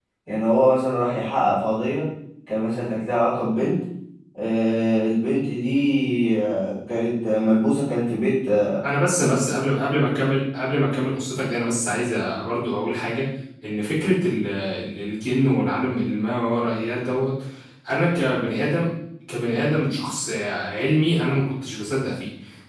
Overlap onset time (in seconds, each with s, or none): none